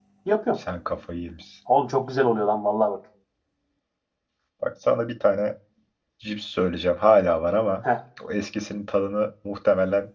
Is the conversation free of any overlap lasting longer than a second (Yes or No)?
Yes